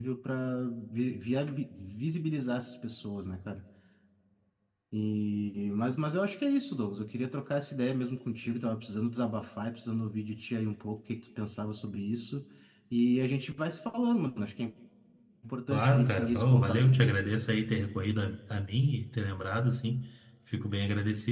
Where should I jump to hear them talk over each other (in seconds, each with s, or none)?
15.7 s